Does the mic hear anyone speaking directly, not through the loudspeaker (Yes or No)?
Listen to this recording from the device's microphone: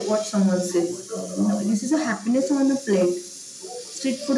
No